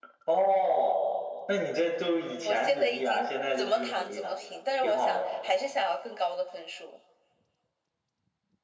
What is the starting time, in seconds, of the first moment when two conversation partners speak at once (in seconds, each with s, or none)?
2.5 s